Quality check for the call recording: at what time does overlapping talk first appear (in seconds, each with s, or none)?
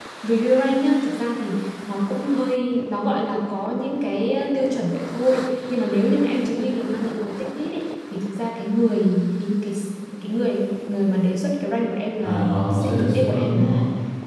12.2 s